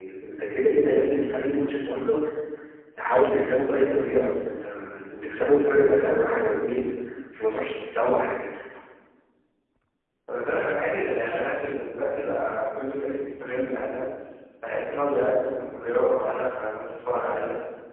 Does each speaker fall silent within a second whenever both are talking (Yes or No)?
Yes